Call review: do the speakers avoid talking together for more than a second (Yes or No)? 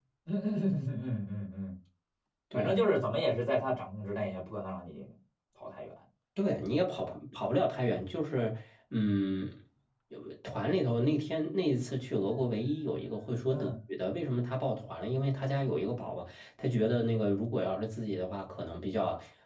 Yes